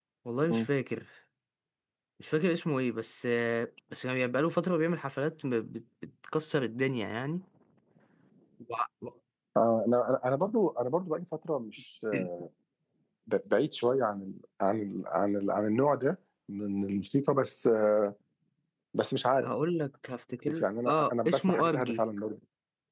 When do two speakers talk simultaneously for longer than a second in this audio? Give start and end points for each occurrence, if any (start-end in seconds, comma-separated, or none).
20.6-22.0